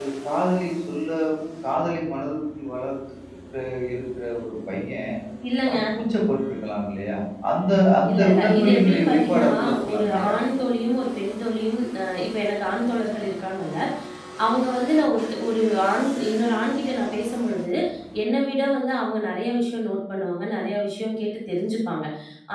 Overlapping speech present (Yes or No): Yes